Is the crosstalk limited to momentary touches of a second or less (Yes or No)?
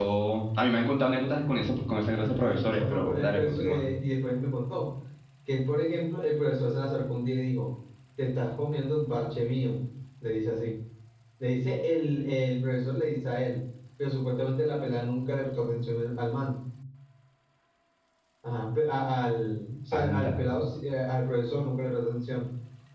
No